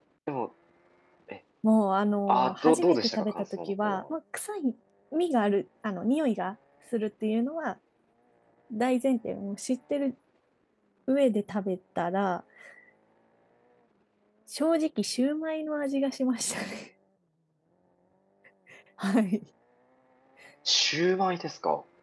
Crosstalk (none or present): present